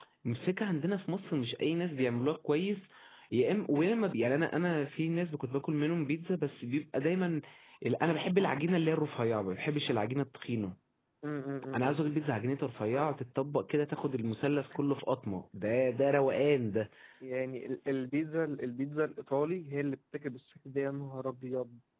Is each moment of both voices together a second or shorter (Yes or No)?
Yes